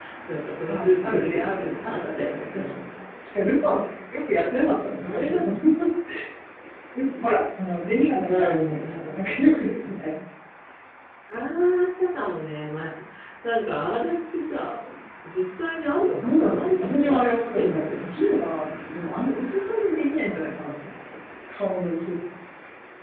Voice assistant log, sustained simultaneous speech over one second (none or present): present